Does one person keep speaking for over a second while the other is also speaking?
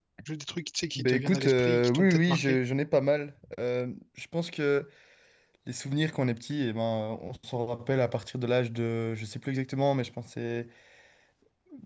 Yes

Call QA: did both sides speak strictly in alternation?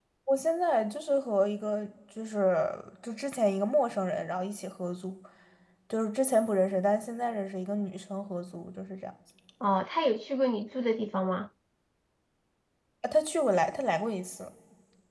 Yes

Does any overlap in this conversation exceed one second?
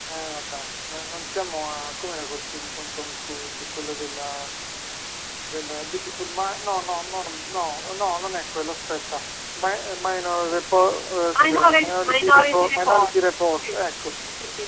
Yes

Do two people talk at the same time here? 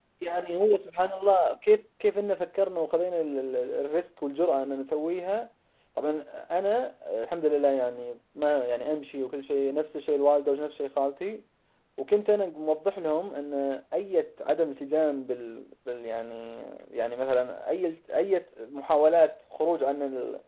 No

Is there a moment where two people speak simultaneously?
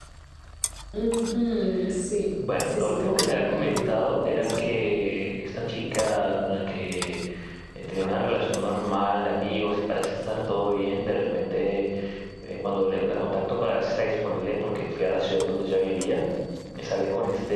Yes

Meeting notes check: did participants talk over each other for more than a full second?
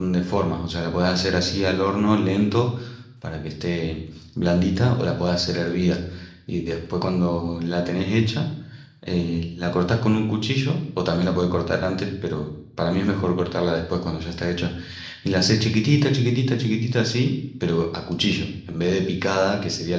No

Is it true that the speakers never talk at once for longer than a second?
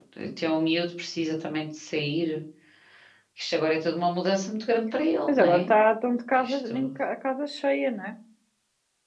Yes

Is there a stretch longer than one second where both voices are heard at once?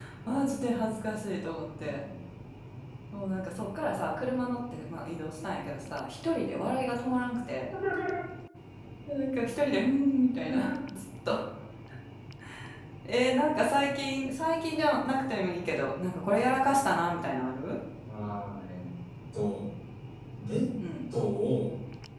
No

